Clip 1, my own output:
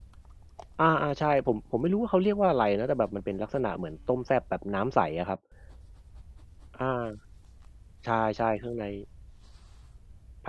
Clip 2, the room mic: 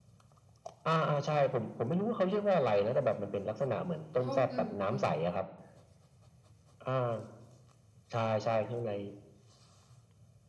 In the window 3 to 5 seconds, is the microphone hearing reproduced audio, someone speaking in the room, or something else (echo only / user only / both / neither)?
both